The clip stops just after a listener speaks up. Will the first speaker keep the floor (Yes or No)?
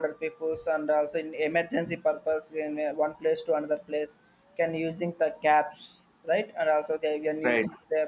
Yes